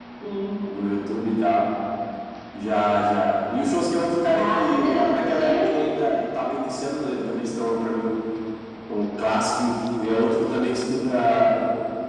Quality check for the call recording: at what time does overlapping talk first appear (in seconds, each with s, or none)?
4.3 s